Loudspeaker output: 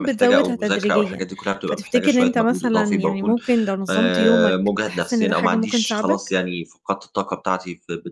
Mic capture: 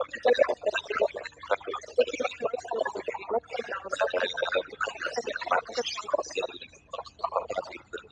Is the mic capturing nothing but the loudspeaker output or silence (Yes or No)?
Yes